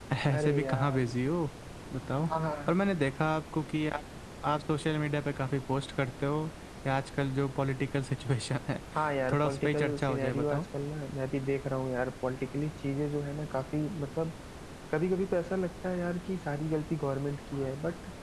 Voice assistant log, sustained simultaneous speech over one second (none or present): present